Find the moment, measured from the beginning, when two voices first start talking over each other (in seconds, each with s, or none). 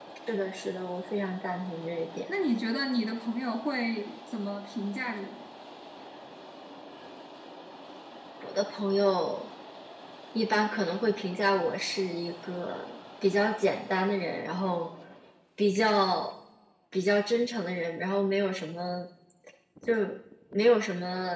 none